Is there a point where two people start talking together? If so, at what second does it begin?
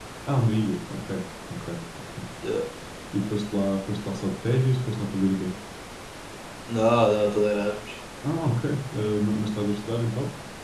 none

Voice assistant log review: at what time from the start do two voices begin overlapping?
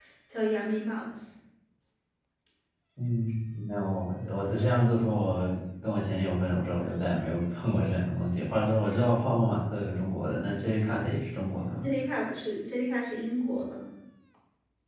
none

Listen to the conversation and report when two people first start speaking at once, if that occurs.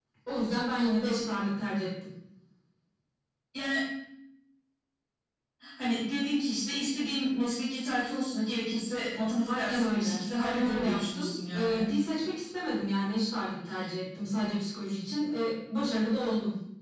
9.5 s

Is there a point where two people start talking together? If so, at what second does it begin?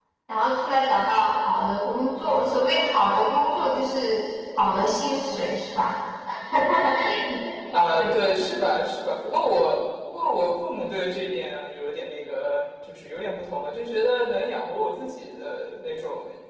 none

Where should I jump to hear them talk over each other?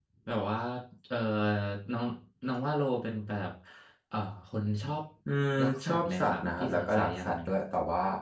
5.6 s

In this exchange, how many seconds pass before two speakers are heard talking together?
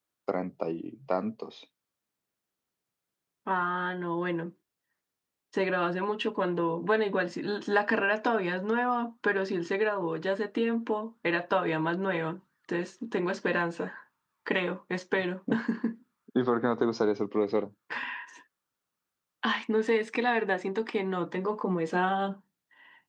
none

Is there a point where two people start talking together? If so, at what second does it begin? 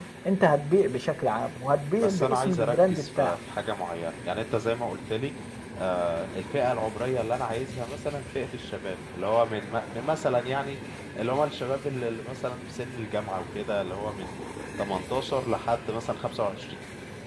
2.0 s

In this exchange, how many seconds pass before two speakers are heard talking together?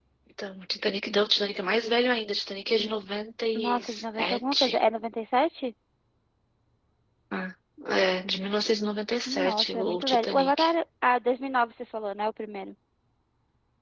3.5 s

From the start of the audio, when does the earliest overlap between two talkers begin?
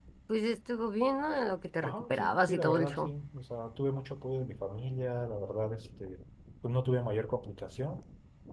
1.8 s

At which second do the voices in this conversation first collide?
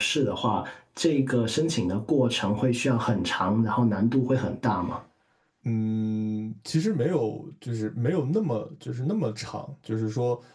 none

